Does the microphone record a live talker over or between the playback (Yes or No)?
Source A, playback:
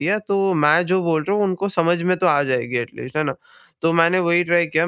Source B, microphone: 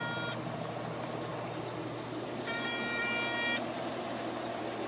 No